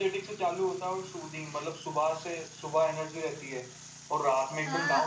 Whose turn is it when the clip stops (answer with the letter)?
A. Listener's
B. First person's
A